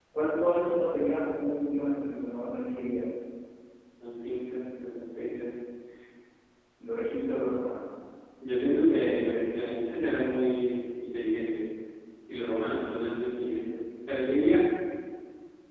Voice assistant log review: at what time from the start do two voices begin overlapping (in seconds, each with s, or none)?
none